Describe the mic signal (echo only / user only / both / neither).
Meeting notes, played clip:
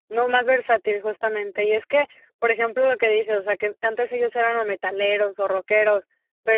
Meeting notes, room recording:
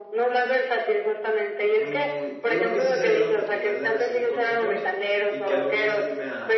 both